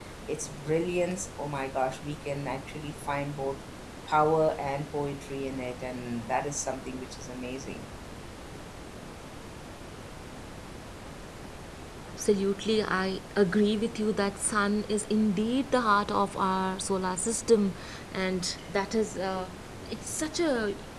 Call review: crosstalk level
none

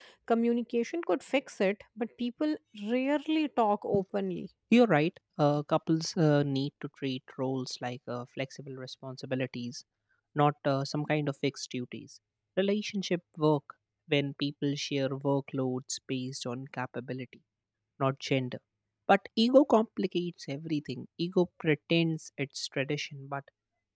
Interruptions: none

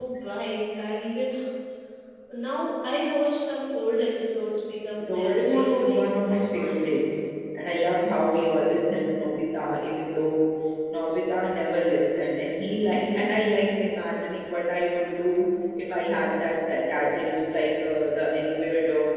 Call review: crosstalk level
present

